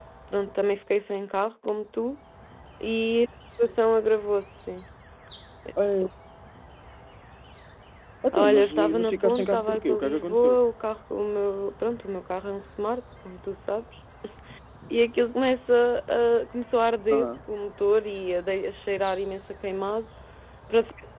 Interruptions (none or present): present